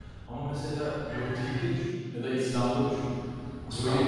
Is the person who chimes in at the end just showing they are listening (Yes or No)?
Yes